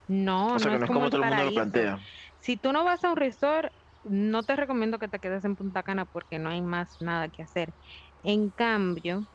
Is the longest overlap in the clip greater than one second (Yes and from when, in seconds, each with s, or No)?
Yes, from 0.5 s